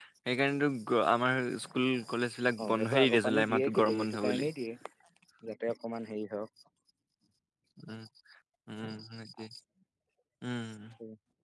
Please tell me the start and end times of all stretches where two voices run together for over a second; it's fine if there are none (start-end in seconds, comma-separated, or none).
2.6-4.5